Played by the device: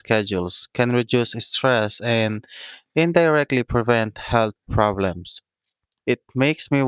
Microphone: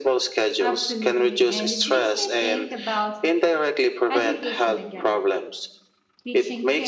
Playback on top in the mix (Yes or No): Yes